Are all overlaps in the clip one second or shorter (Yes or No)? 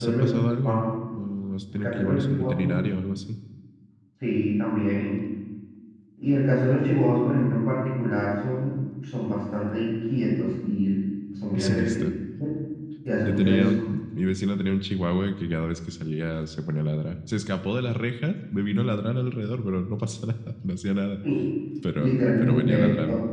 No